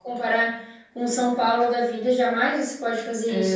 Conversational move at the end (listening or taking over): taking over